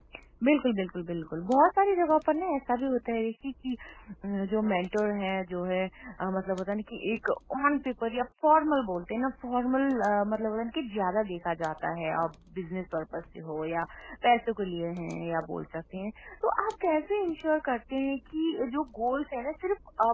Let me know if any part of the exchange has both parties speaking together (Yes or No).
No